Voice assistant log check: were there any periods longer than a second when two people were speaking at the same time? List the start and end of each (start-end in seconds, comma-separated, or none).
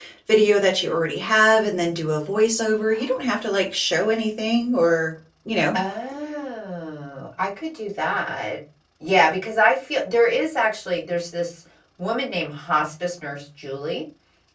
none